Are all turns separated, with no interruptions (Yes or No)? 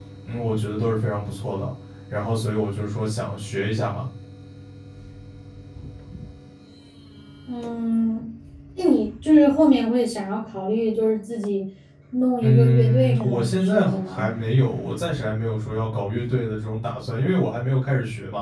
No